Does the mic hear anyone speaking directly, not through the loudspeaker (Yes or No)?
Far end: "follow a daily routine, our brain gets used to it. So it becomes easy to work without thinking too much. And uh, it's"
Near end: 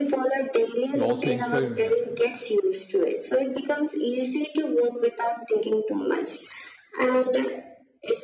Yes